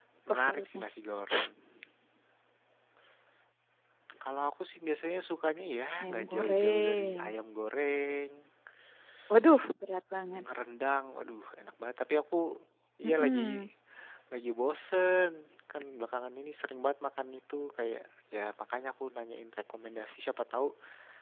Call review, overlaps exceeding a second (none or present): present